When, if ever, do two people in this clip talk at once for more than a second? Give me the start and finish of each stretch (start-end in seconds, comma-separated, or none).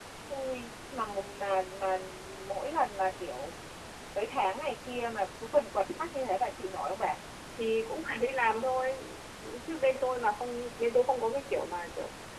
none